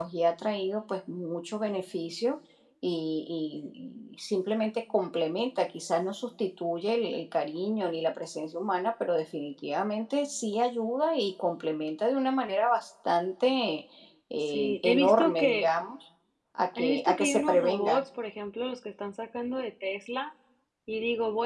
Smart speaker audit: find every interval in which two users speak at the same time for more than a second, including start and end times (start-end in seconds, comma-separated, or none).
14.5-15.7, 16.8-18.0